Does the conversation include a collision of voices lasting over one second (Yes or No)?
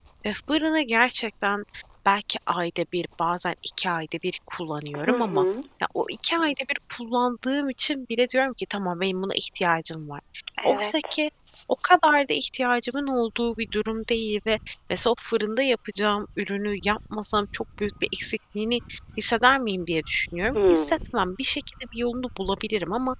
No